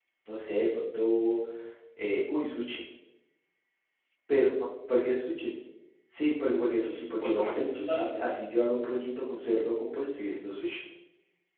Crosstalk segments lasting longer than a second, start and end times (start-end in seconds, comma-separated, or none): 6.7-8.2